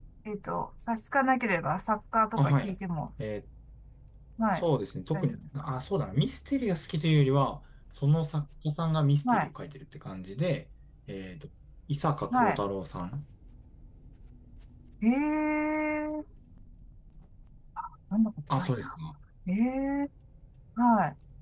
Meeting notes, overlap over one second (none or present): none